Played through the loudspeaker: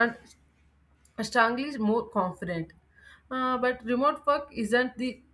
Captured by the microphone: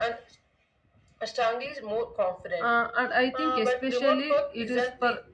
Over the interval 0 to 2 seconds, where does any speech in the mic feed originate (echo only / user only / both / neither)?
echo only